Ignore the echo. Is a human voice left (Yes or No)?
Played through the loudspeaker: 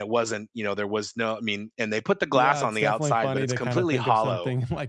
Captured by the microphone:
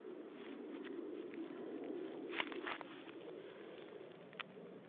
No